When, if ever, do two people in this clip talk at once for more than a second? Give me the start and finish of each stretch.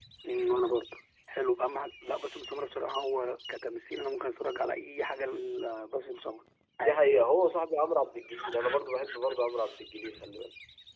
none

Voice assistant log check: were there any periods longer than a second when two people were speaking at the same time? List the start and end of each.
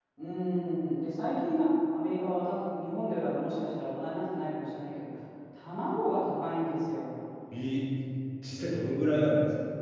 none

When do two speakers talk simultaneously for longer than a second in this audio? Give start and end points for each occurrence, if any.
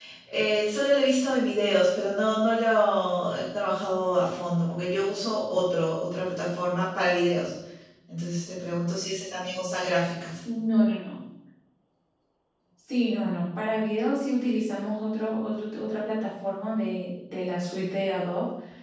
none

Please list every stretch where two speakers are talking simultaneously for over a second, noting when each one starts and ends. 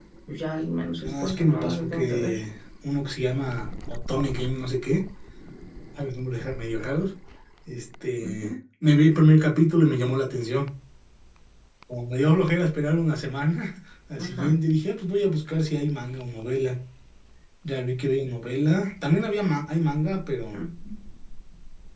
1.0-2.4

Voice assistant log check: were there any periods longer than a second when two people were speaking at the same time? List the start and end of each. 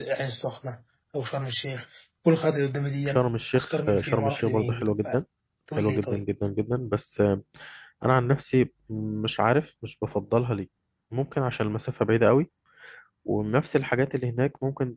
3.6-5.2

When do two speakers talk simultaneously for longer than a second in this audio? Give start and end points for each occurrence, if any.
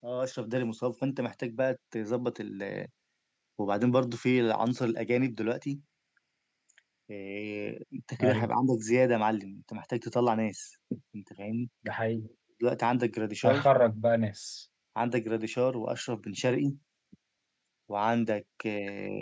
none

